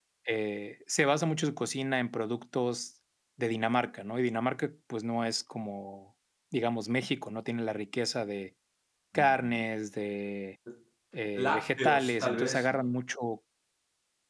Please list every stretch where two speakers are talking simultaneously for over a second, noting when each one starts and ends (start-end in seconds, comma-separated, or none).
11.3-12.9